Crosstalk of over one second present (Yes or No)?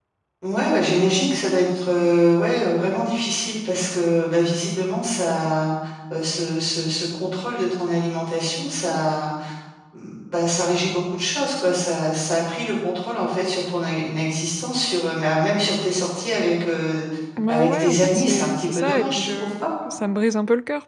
Yes